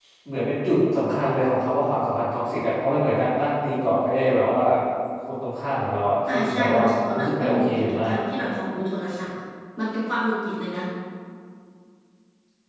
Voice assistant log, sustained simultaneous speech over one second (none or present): present